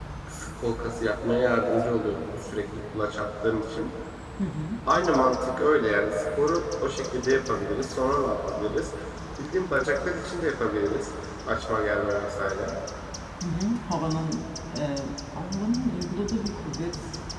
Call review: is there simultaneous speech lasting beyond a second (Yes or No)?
No